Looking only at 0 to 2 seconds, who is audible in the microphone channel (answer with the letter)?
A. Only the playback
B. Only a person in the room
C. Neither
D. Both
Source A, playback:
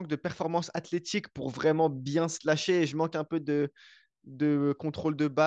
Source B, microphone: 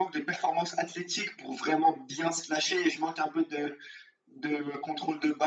A